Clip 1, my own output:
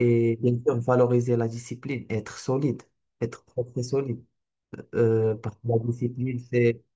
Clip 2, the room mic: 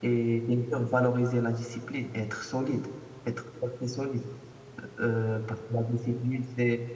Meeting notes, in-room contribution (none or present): none